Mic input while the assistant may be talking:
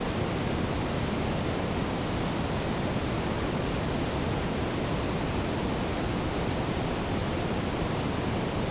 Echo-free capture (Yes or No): Yes